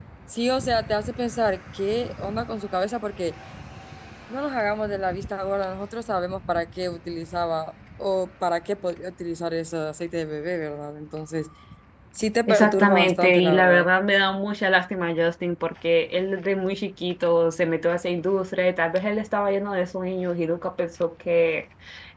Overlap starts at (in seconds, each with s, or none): 12.5 s